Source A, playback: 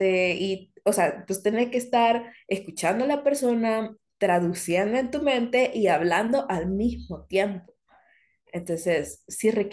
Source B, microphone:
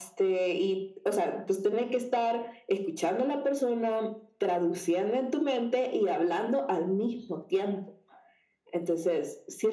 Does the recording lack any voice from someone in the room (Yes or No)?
Yes